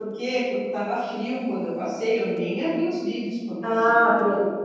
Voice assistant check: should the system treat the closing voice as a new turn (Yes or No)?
Yes